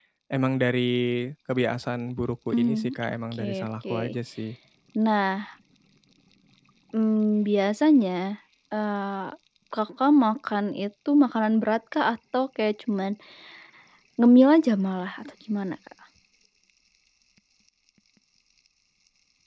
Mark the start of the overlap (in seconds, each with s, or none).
2.5 s